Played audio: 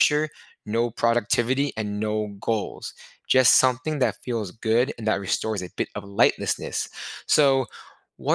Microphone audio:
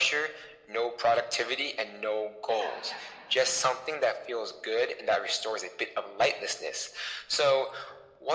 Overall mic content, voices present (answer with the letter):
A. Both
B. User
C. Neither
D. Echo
A